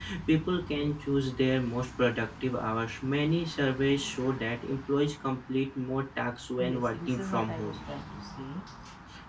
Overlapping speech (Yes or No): Yes